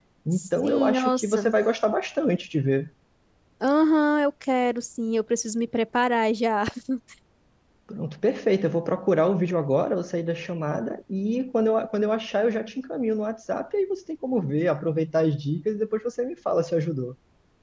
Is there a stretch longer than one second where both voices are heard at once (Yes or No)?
Yes